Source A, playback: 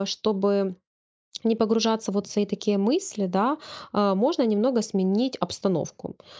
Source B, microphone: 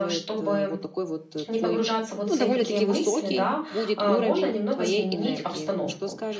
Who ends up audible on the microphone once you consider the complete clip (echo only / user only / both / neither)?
both